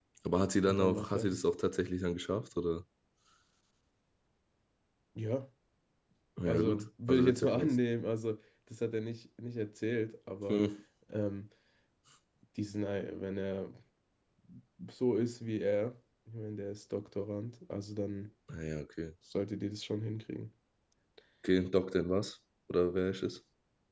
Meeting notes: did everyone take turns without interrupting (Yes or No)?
No